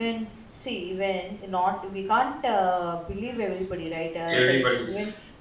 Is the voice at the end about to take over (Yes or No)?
No